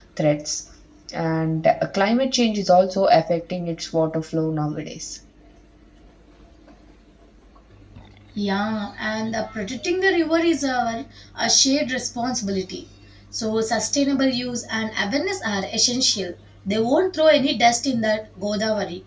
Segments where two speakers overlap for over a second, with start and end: none

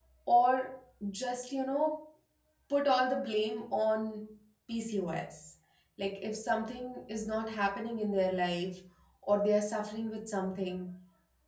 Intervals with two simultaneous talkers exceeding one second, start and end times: none

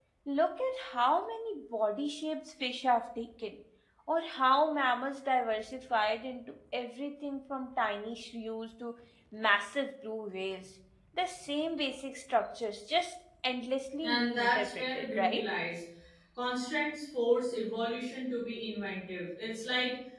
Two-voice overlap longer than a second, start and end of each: 14.0-15.4

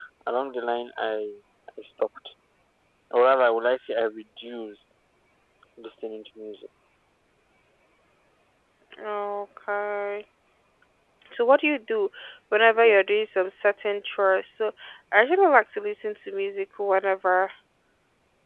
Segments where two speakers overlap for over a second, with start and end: none

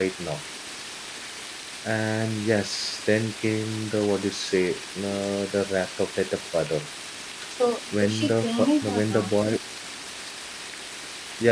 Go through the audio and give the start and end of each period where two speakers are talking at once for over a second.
8.0-9.3

